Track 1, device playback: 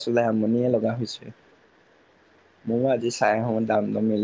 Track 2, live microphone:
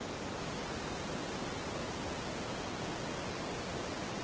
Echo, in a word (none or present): none